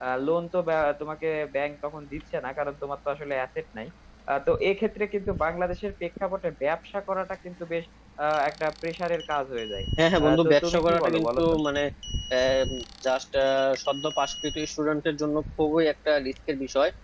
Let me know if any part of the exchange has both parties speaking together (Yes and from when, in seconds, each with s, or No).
Yes, from 10.2 s